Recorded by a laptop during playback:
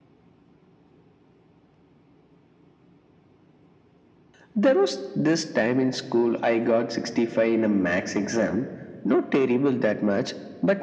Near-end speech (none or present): none